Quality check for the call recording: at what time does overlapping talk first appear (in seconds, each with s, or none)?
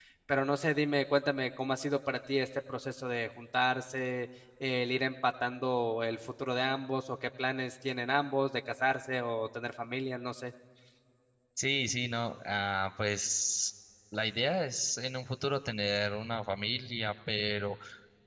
none